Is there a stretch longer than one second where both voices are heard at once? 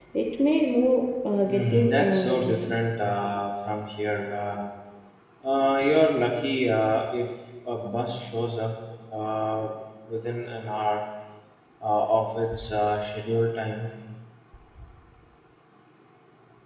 Yes, from 1.4 s

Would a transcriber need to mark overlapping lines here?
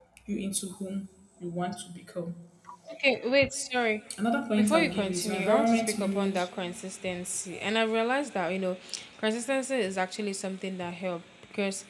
Yes, from 4.6 s

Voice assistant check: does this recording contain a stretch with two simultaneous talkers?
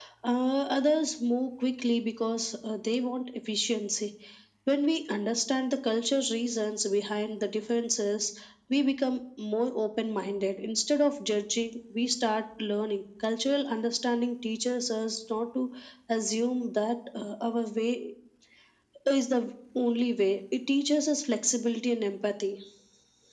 No

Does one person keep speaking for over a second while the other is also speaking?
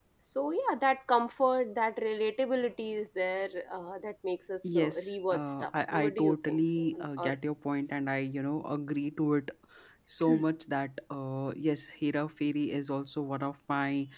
Yes, from 4.6 s

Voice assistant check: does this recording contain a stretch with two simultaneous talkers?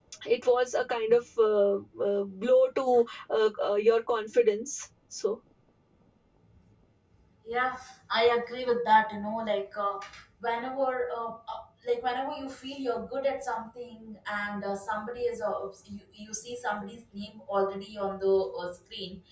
No

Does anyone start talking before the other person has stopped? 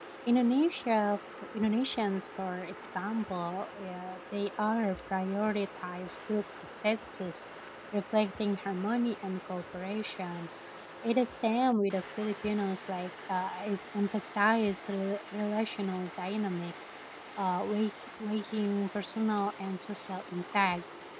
No

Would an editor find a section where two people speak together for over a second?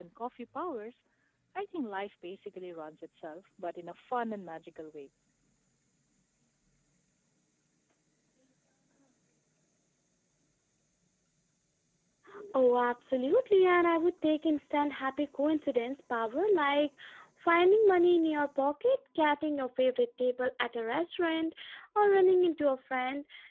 No

